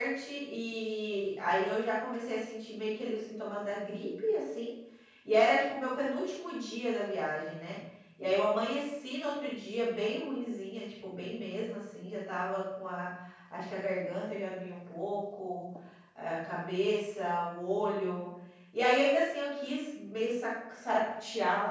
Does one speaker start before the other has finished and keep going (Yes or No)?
No